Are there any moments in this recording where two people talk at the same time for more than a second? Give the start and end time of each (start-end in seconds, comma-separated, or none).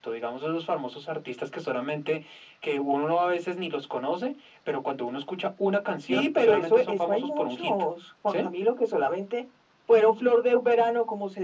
6.1-7.7